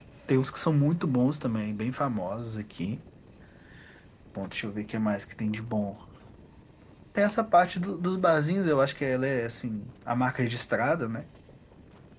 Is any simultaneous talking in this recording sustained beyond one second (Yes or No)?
No